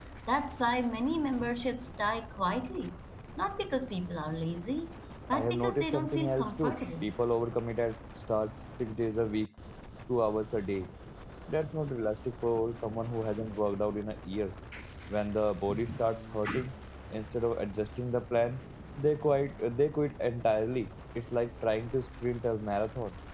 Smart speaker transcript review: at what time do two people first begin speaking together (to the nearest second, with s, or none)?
5 s